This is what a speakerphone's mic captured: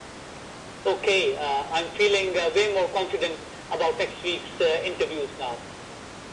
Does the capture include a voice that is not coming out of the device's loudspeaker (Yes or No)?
No